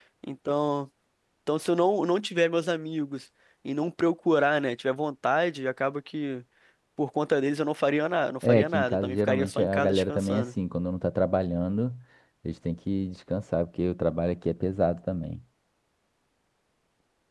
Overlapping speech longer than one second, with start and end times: 8.4-10.5

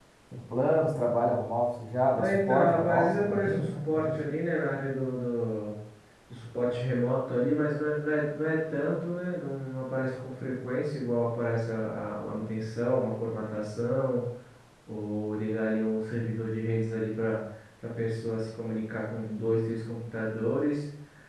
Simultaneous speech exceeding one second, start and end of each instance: 2.2-4.2

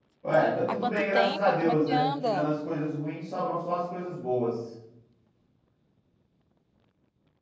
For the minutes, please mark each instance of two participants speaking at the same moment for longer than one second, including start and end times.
0.7-2.5

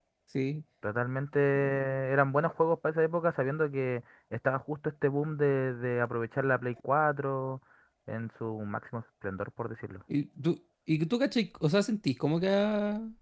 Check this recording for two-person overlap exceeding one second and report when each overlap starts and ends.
none

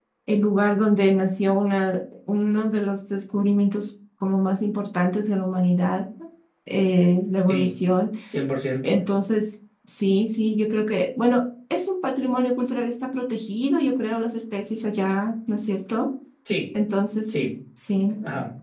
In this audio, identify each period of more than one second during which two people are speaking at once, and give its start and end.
none

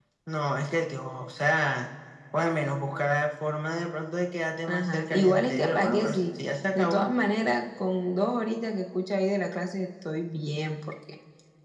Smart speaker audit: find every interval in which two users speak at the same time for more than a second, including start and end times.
4.7-6.2

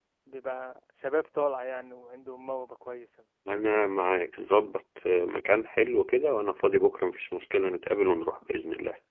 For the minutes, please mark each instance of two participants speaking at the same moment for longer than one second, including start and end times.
none

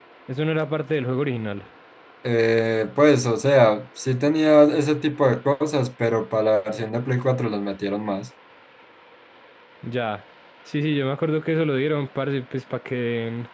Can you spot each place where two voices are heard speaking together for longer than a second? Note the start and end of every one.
none

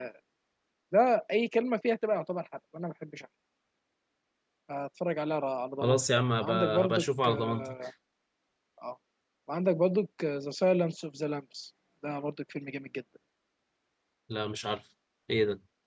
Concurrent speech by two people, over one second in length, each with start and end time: 5.8-7.6

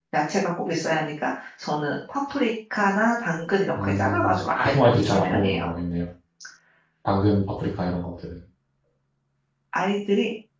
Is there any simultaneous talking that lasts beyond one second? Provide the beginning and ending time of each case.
3.8-5.6

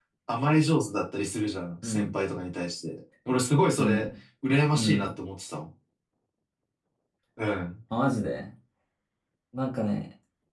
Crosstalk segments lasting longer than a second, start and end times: none

